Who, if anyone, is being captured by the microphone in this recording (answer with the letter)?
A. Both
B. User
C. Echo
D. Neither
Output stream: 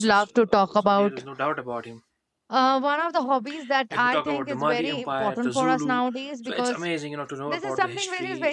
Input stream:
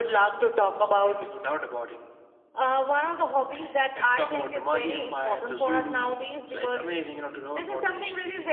C